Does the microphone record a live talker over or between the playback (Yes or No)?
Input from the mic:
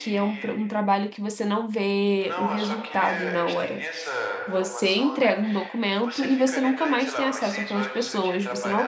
Yes